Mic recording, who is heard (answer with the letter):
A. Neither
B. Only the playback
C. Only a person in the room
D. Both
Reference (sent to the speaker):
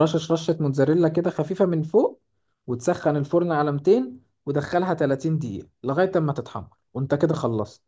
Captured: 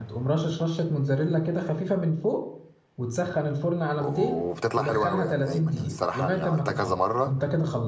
D